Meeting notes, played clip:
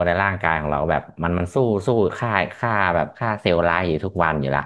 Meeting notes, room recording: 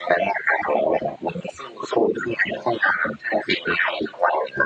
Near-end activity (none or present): none